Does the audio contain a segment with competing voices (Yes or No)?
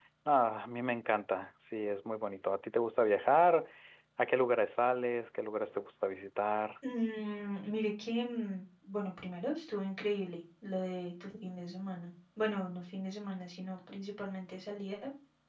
No